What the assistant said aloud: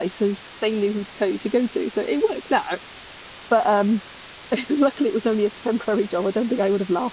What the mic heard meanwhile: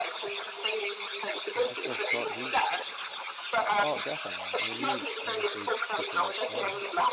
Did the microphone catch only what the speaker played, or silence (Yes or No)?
No